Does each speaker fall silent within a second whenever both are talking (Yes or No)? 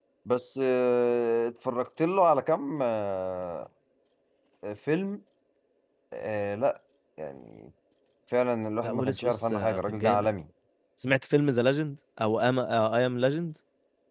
No